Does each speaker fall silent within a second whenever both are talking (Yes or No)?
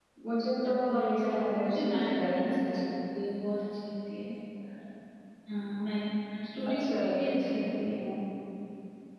No